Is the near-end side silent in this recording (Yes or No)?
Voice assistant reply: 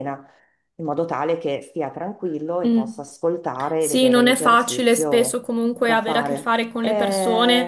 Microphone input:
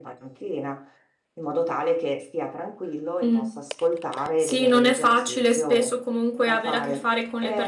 Yes